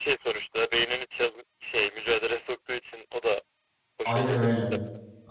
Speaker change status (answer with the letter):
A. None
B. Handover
B